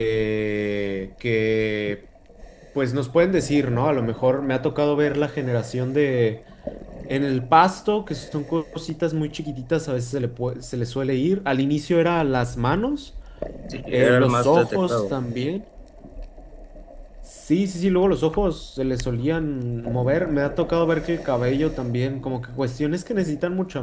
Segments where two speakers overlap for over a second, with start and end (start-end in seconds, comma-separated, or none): 13.9-15.2